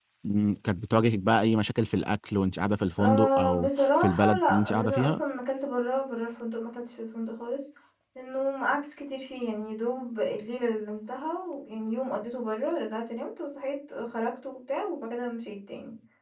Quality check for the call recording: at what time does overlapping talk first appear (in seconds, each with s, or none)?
3.0 s